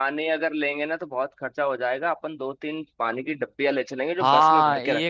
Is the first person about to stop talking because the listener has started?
Yes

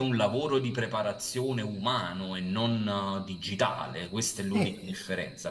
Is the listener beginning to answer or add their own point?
No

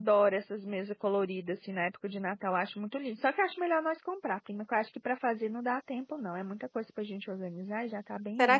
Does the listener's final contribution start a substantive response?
Yes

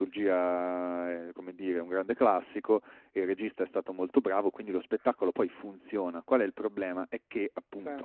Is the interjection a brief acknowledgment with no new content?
Yes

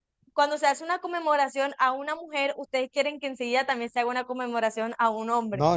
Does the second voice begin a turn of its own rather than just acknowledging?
Yes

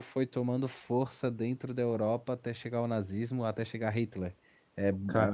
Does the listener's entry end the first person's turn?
No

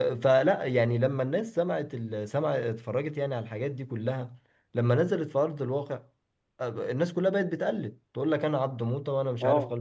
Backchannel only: Yes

